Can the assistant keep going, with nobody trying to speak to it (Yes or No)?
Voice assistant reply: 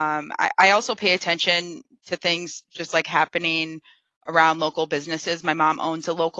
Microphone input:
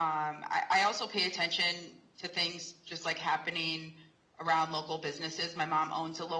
Yes